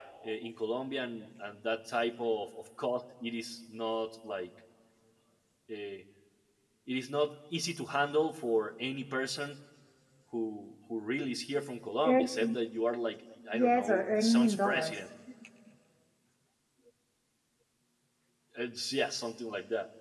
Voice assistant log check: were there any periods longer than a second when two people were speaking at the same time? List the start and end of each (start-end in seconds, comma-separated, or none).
13.5-14.9